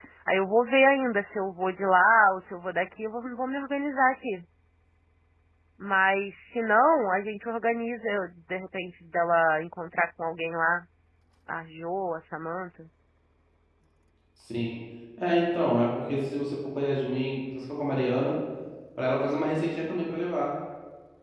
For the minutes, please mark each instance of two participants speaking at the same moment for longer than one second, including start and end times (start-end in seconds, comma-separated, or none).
none